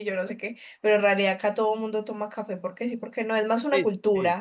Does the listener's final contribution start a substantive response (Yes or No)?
Yes